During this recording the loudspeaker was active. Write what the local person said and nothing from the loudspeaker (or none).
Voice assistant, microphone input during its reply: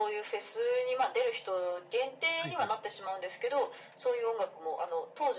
はいはい。